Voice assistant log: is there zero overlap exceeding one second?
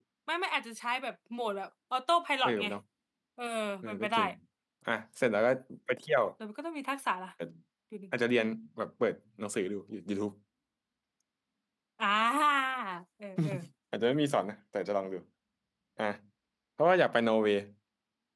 Yes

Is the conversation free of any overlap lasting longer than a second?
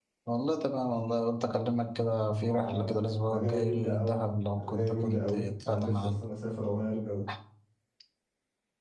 No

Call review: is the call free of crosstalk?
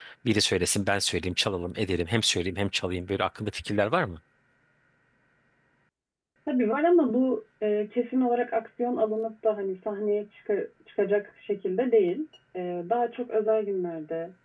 Yes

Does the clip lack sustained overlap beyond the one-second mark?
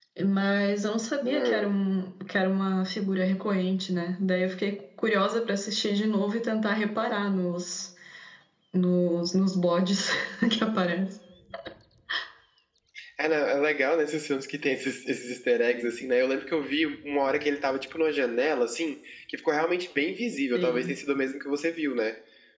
Yes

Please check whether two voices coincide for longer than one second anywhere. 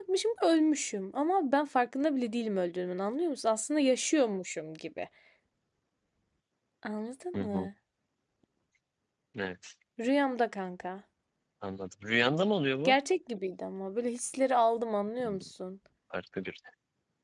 No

